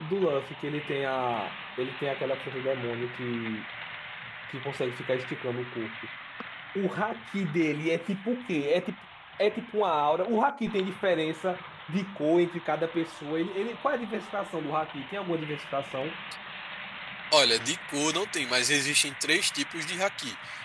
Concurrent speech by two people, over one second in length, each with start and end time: none

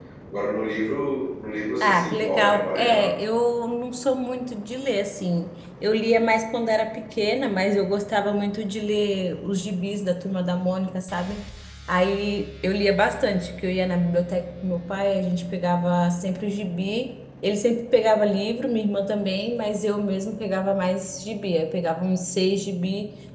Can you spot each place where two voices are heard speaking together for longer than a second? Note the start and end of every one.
1.8-3.1

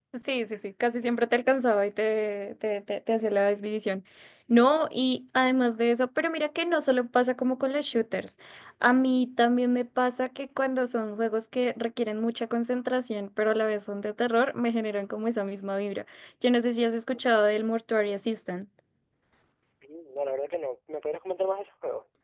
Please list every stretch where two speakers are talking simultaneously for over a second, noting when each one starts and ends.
none

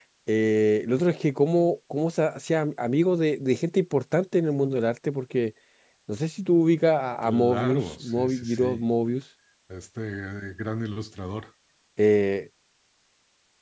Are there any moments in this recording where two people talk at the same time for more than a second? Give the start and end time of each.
7.2-8.8

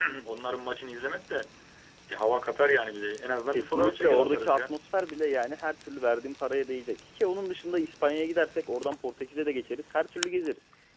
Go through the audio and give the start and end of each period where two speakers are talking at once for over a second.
3.5-4.8

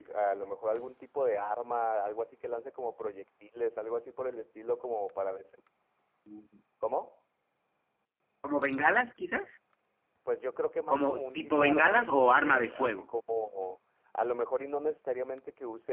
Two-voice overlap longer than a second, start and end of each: 10.9-12.9

